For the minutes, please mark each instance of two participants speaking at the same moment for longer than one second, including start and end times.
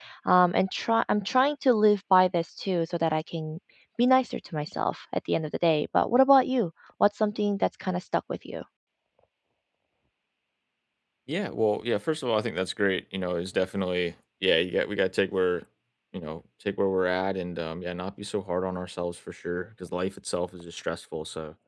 none

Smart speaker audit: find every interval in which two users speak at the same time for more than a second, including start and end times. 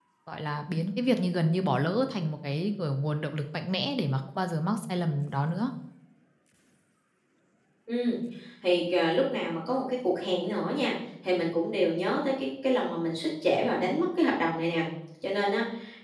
none

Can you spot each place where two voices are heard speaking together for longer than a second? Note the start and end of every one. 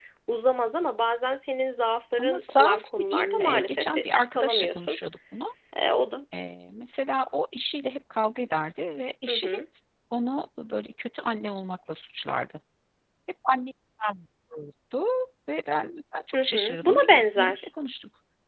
2.2-5.0, 16.3-17.6

